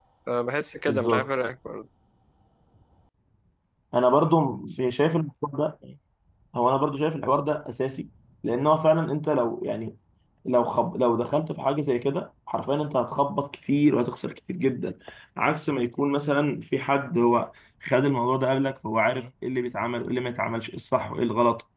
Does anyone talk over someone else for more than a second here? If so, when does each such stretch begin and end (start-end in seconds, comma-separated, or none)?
none